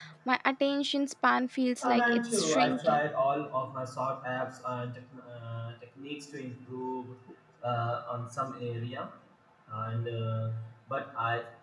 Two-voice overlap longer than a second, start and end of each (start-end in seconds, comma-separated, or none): 1.8-3.0